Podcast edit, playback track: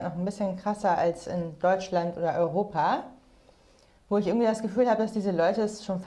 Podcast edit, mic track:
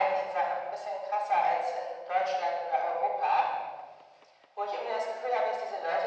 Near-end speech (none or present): none